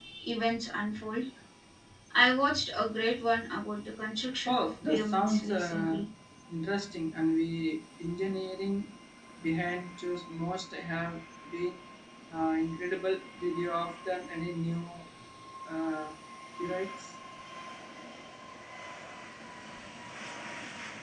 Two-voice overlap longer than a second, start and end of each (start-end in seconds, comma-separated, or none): 4.5-6.0